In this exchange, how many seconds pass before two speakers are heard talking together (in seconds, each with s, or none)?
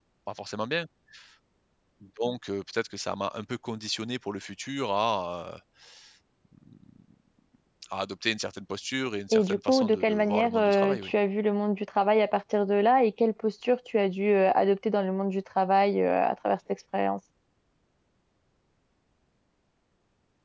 9.3 s